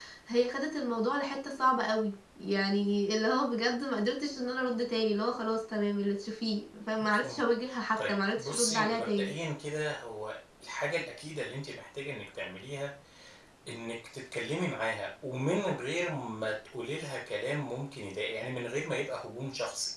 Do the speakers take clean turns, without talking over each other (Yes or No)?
No